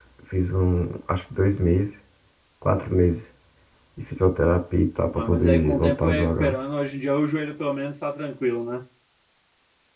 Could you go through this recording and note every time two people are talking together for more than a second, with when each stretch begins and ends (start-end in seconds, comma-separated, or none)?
5.1-6.6